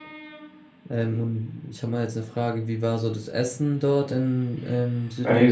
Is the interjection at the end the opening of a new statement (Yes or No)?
Yes